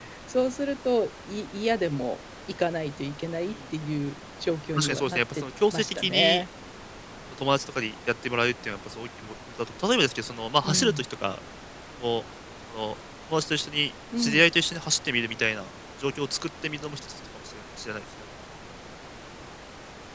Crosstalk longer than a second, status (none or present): present